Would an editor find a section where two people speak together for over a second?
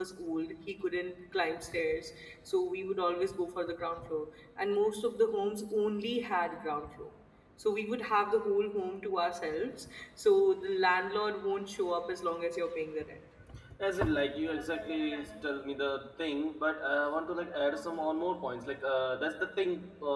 No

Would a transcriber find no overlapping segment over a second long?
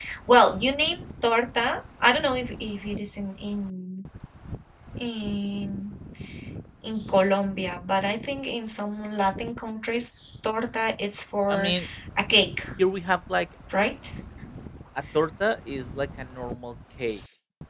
Yes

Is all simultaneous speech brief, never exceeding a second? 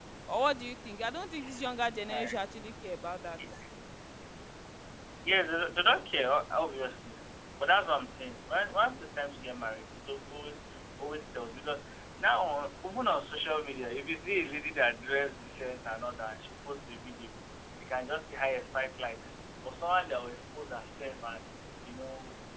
Yes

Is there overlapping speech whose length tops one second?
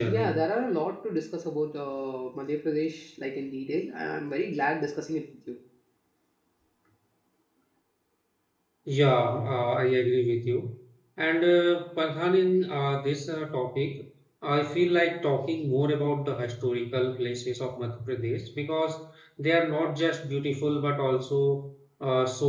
No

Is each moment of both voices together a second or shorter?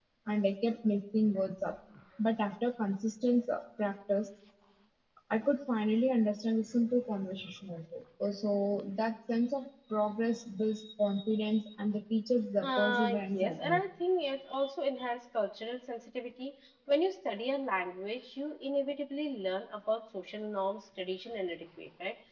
No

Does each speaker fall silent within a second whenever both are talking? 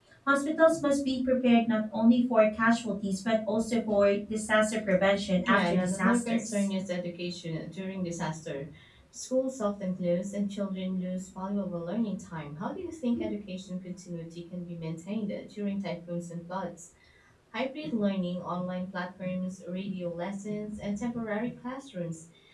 No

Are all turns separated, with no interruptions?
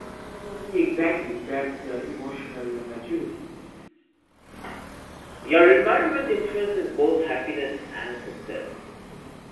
Yes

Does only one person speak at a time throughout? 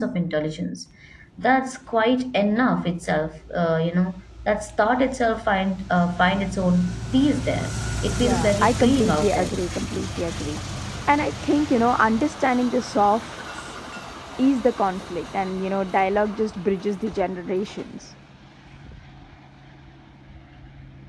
No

